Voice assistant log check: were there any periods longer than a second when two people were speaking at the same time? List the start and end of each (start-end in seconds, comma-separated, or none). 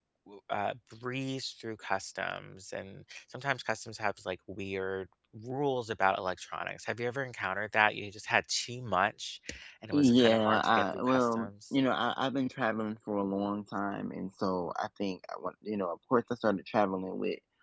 9.9-11.5